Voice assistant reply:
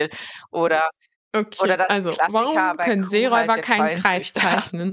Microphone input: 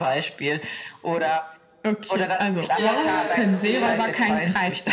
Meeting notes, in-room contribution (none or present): present